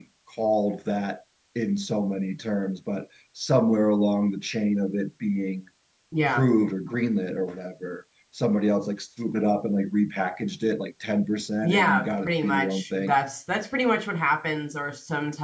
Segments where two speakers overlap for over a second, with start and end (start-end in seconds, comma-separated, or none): 11.6-13.1